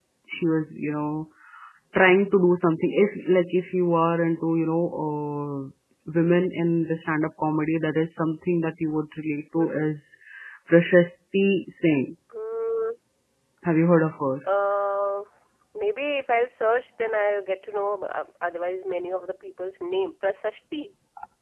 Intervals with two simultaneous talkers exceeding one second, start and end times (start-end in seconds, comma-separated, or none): none